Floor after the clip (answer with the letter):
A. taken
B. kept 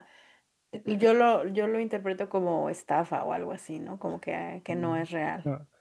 A